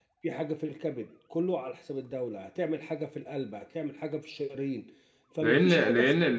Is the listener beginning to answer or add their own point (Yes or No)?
Yes